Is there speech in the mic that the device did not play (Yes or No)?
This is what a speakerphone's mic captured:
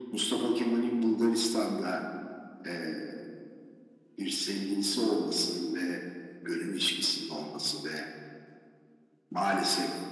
No